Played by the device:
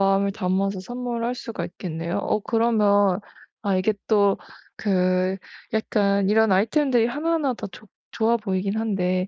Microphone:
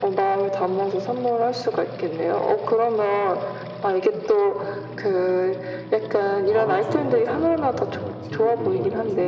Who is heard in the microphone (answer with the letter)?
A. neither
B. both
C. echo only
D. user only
B